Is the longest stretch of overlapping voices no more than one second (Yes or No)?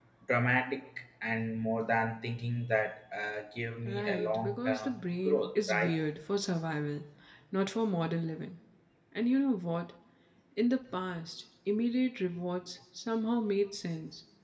No